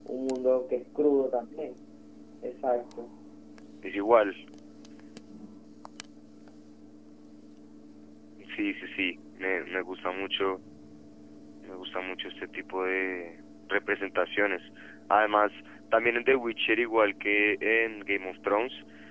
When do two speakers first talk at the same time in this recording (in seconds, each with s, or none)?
none